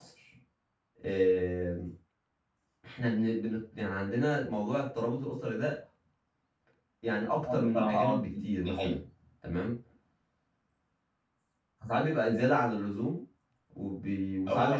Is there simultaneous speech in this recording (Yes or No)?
Yes